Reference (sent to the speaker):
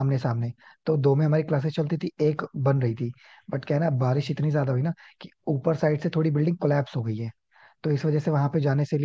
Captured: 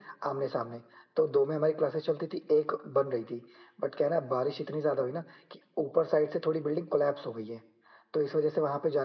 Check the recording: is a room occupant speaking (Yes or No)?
No